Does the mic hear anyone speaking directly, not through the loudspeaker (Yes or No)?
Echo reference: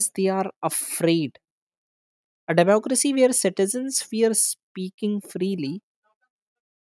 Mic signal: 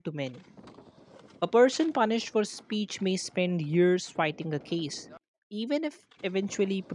Yes